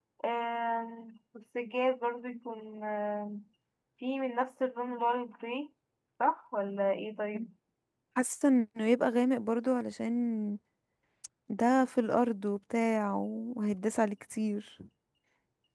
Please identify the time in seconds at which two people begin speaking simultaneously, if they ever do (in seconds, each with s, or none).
none